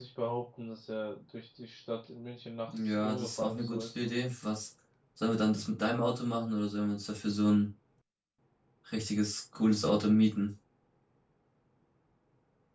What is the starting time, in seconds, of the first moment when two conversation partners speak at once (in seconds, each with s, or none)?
2.7 s